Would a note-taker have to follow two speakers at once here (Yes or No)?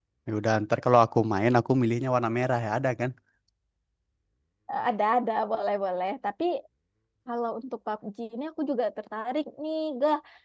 No